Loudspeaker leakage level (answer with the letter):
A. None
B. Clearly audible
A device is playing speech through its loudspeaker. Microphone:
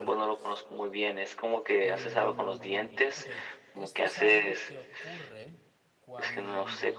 B